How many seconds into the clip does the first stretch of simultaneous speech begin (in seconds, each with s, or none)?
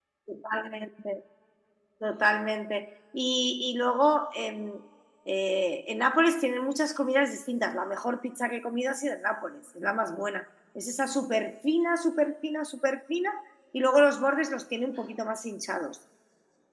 none